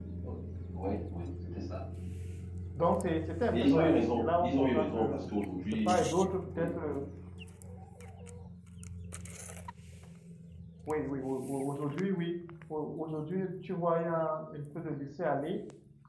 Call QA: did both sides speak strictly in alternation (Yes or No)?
No